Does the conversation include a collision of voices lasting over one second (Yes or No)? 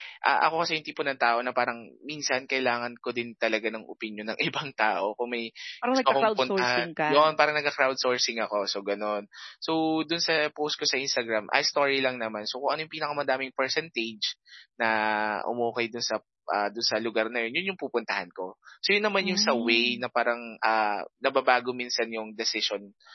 Yes